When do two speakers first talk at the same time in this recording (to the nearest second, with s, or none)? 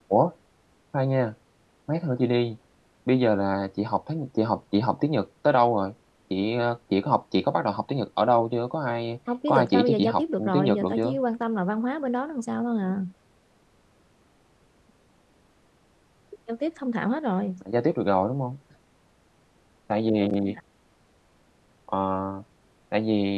9 s